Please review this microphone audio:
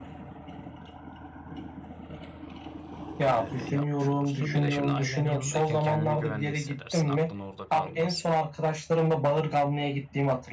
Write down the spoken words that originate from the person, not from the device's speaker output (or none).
e, yapmış olursun. Bir de şimdi ailen yanındayken kendini güvende hissedersin. Aklın orada kalmaz.